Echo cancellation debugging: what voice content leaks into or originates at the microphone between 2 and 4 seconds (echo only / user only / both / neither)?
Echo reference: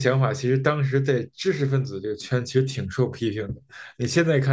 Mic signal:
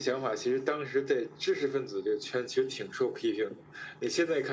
echo only